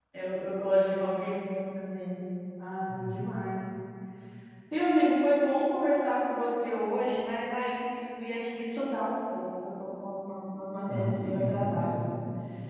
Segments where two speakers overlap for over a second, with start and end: 10.9-12.1

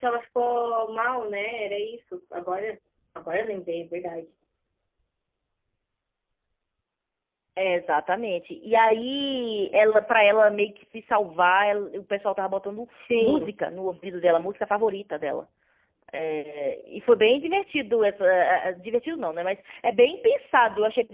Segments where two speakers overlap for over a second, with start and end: none

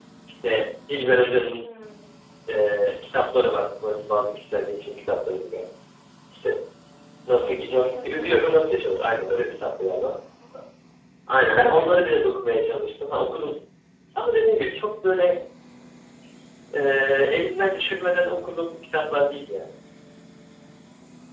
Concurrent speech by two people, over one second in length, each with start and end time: none

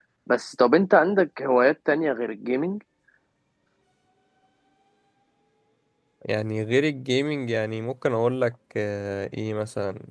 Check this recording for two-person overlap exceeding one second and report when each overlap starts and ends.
none

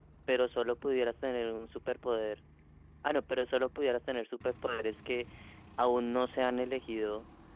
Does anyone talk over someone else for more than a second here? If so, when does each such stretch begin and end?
none

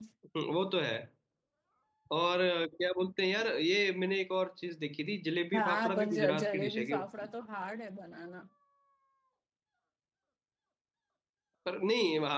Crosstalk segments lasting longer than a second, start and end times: 5.5-7.0

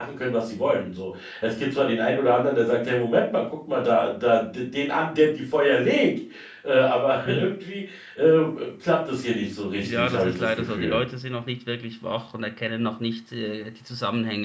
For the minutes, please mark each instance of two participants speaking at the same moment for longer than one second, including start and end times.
9.8-11.0

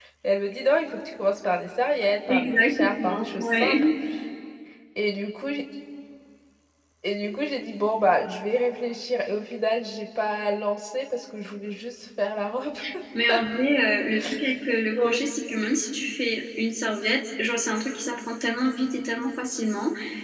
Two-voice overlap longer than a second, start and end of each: 2.3-3.8

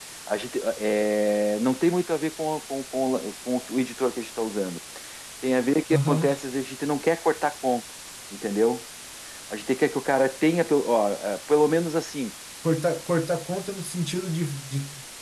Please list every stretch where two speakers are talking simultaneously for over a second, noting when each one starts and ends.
none

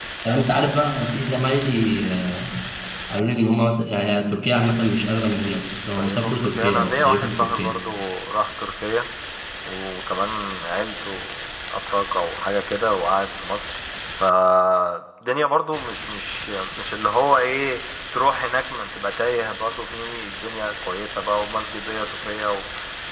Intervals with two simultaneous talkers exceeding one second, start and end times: 5.9-7.8

